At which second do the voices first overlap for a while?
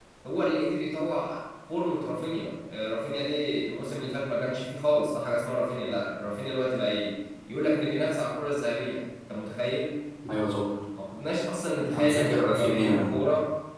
11.9 s

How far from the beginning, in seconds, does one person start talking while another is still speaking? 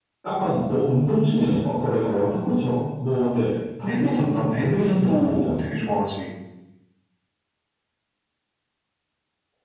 3.9 s

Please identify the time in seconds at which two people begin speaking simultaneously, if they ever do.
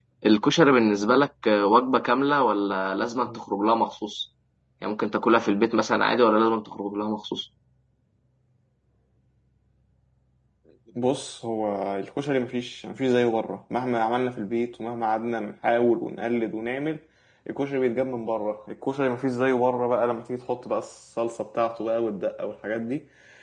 none

